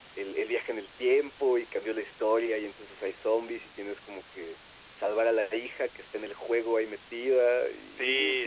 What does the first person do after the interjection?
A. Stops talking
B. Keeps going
A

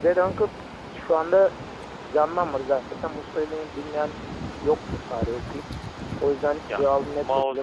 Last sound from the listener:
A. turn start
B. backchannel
A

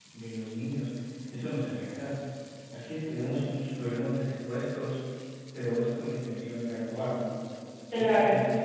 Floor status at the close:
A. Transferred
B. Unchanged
B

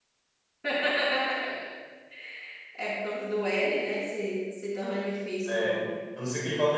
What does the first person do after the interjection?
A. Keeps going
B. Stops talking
B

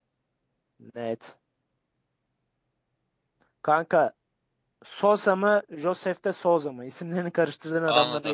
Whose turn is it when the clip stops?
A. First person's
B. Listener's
B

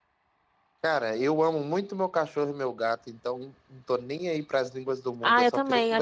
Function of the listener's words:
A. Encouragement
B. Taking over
B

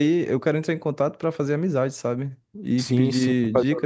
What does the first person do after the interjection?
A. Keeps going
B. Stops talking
B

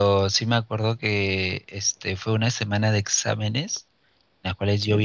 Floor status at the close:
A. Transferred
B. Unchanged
B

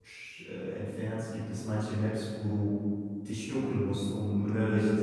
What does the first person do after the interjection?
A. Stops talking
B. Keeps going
B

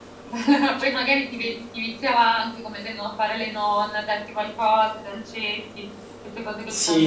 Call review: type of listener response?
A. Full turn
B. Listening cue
A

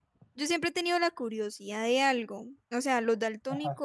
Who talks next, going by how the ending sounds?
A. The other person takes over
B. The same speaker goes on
B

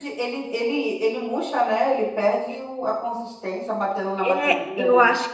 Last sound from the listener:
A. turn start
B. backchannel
A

